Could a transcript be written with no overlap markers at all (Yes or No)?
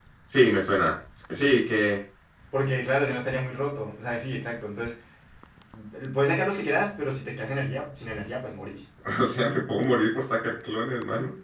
Yes